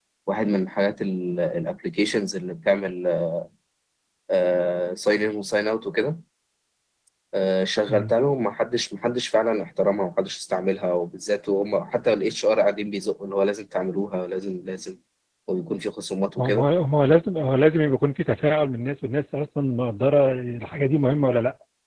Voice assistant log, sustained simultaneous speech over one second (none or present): none